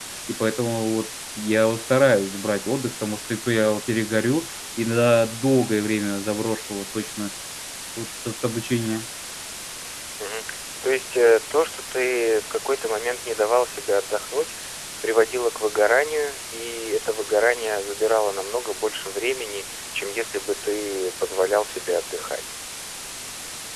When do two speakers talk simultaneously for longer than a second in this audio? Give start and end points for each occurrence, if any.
none

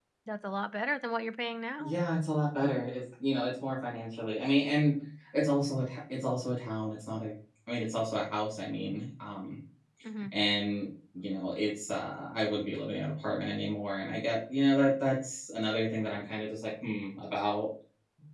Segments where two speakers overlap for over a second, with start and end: none

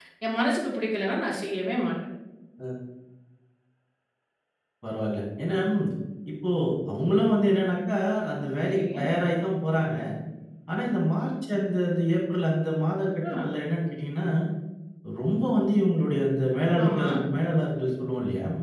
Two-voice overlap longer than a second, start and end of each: none

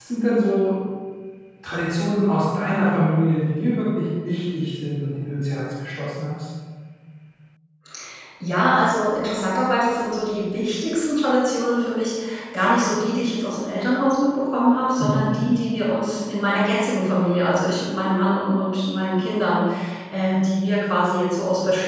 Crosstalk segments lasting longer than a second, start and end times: none

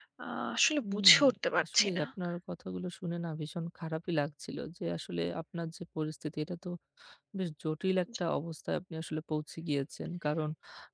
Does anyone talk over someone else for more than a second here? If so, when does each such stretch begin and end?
none

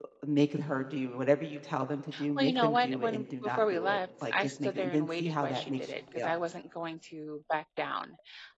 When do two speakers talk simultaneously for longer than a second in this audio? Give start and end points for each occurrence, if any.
2.4-6.3

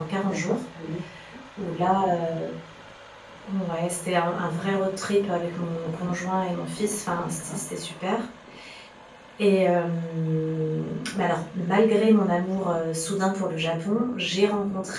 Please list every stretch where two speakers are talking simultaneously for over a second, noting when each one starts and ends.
none

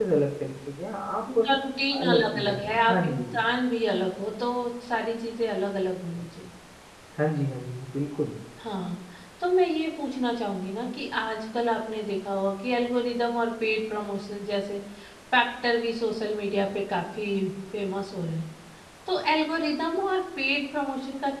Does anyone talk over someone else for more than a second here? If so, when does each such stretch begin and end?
2.0-3.4

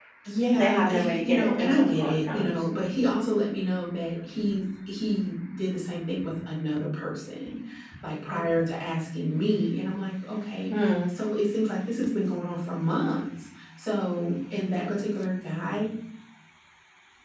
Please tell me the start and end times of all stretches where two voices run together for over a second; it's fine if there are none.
0.5-2.5

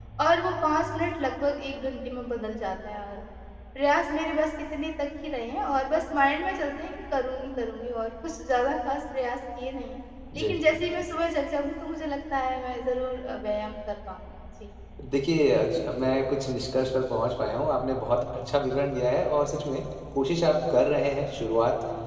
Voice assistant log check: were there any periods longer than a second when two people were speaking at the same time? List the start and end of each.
none

